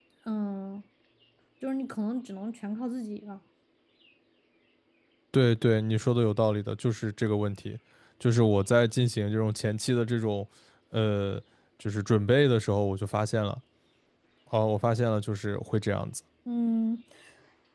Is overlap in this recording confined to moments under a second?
Yes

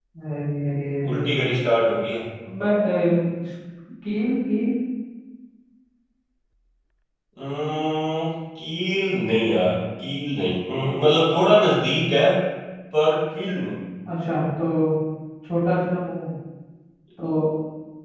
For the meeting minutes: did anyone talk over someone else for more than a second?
No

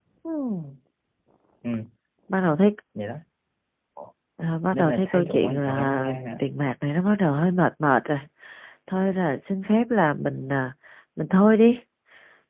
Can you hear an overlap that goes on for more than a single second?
Yes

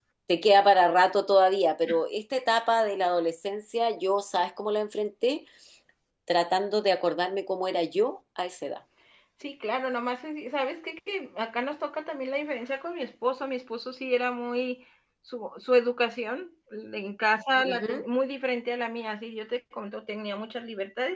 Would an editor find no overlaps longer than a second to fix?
Yes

